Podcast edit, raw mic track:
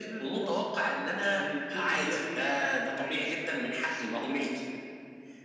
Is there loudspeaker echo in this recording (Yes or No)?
Yes